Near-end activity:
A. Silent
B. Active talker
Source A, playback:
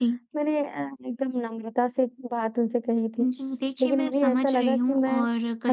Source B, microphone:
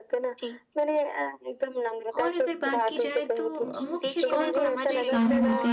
B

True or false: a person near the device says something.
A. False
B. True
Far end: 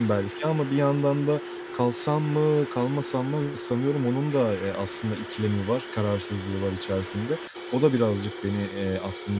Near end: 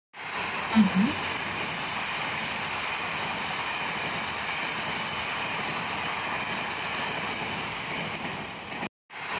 B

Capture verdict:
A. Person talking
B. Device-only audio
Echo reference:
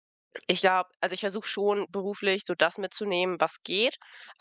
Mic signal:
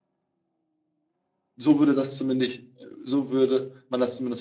A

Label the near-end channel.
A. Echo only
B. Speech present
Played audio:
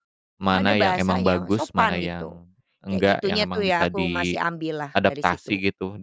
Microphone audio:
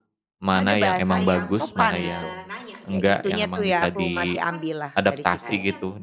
B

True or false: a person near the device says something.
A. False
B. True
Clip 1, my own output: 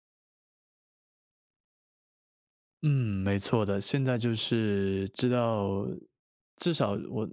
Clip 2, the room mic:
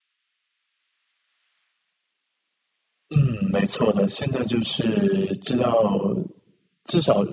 A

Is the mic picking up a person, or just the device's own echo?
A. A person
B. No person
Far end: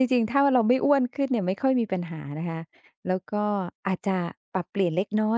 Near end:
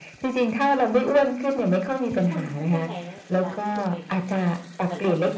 A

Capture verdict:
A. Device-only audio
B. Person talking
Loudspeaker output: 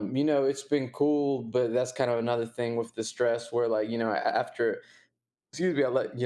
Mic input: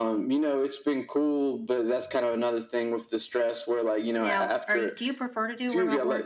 B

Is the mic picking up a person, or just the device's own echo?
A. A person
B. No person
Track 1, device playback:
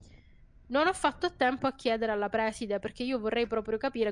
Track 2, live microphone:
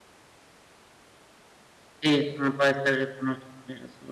A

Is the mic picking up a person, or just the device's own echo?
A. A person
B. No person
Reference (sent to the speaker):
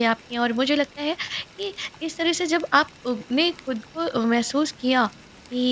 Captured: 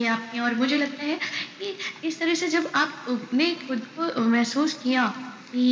B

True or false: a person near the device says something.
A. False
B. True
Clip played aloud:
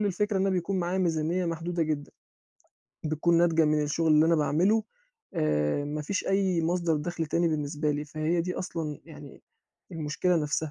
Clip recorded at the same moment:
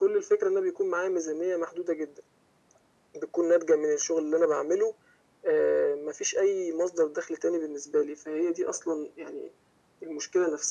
A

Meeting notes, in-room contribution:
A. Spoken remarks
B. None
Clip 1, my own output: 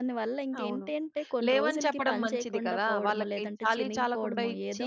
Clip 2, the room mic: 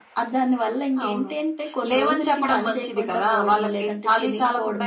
B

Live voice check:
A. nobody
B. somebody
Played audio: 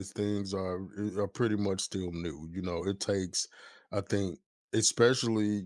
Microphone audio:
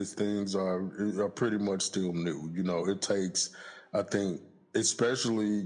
A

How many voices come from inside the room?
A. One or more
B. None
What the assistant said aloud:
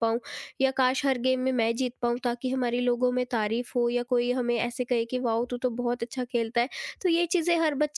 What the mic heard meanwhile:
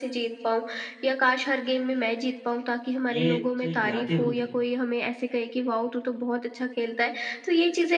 A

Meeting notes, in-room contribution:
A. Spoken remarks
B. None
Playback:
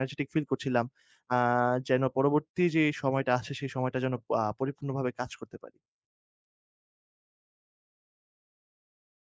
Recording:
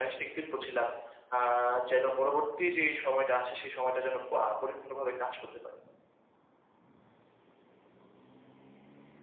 B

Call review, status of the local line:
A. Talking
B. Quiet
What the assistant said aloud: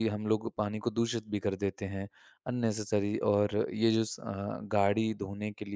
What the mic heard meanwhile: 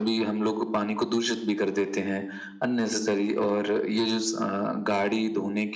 B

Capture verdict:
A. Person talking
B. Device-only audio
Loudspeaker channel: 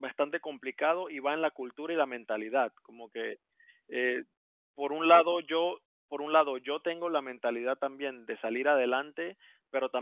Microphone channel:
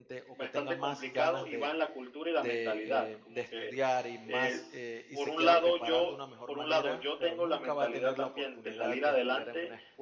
A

